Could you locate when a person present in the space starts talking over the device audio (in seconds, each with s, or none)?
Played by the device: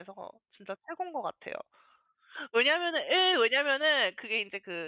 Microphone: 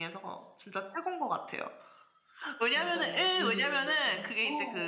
2.7 s